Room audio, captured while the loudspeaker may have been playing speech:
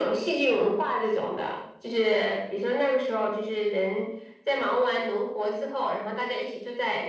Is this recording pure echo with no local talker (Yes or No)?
Yes